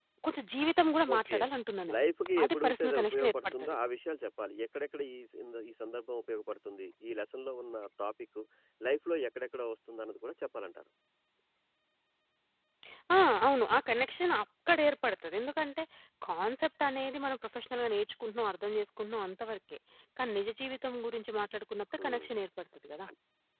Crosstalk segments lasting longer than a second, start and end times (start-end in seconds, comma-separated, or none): 2.4-3.8